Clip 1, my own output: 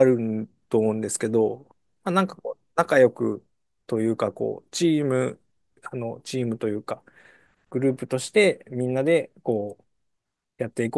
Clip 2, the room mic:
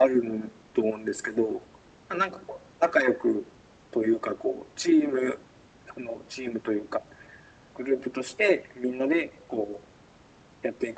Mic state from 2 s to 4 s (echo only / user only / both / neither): echo only